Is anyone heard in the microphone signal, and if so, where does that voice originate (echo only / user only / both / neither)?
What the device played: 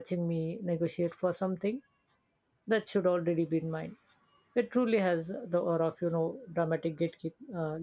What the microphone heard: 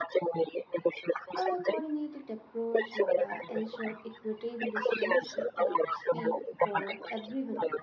both